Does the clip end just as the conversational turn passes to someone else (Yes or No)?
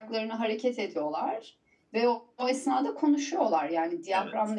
No